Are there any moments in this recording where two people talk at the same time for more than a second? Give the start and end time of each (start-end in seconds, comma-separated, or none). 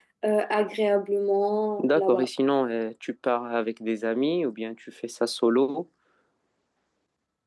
none